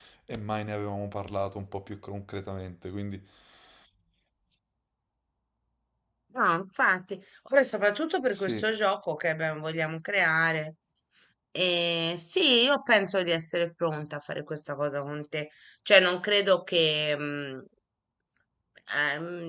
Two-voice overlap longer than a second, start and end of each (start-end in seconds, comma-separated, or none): none